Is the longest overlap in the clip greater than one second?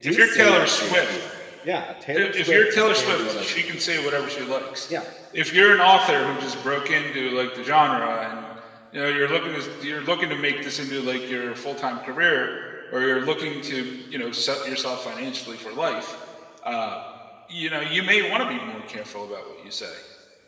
Yes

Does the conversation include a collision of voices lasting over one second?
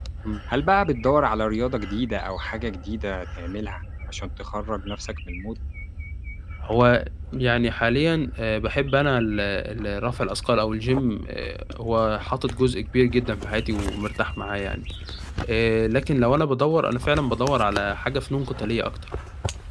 No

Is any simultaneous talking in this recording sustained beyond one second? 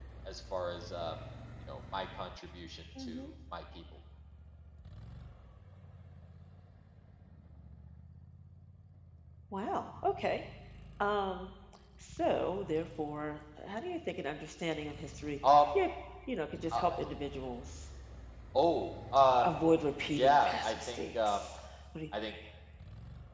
Yes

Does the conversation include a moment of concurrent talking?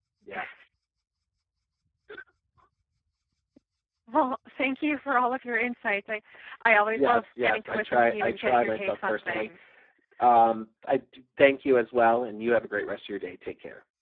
Yes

